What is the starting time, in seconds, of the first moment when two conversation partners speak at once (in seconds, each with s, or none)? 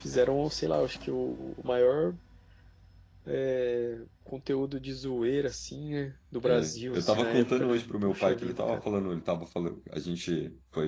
6.5 s